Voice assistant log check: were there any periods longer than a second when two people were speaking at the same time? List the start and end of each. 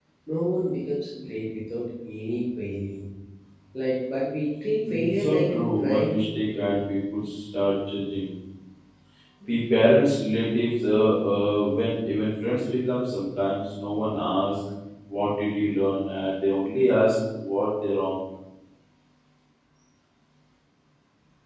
4.9-6.2

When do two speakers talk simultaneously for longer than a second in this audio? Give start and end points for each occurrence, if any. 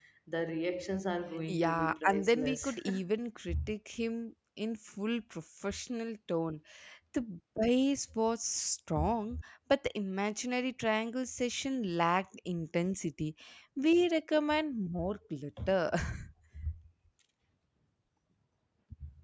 1.5-2.8

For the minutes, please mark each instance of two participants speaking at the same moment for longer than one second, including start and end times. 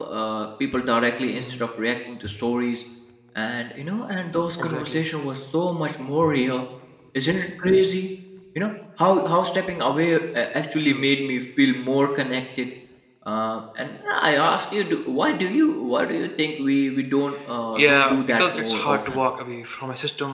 17.8-19.2

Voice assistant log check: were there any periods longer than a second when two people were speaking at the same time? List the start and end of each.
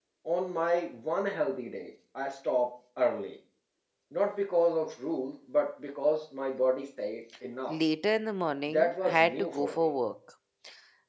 8.7-9.9

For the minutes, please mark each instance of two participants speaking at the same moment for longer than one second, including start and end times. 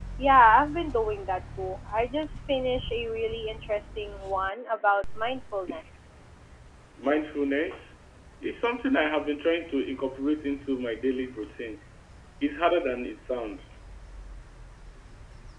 none

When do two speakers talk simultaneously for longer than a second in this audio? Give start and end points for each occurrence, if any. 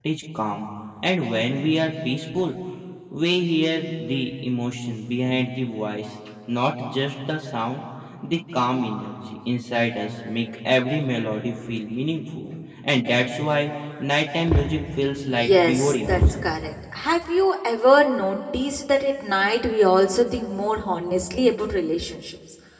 15.2-16.5

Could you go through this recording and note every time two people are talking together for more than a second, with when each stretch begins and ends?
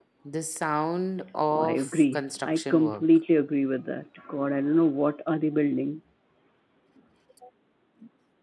1.5-3.0

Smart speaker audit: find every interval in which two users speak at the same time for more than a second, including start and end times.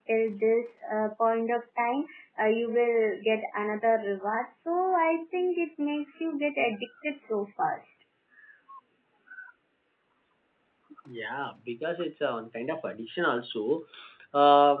none

